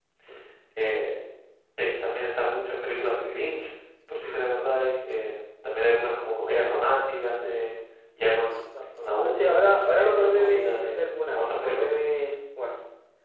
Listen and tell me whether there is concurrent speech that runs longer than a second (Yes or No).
Yes